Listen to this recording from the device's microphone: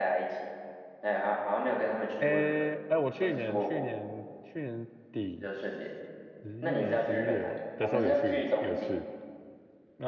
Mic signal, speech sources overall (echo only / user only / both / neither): both